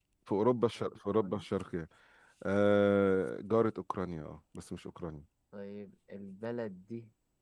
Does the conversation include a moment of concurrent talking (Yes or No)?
No